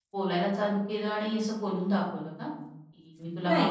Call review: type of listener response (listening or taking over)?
taking over